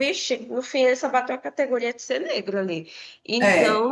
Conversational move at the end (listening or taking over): listening